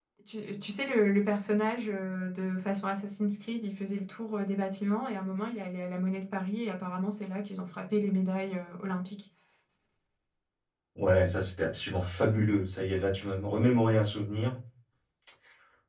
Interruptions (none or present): none